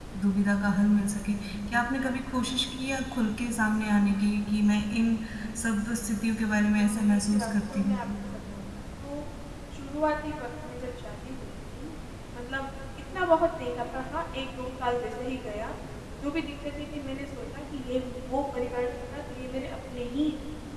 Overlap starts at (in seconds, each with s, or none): 6.8 s